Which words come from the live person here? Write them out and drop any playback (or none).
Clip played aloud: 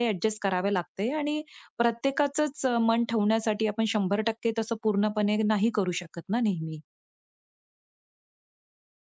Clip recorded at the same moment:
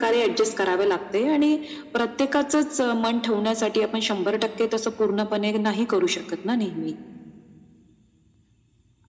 none